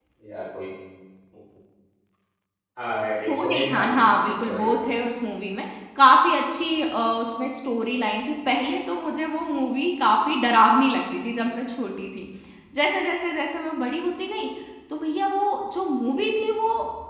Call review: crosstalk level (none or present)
present